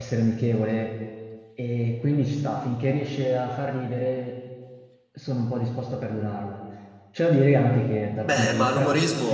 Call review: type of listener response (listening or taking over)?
taking over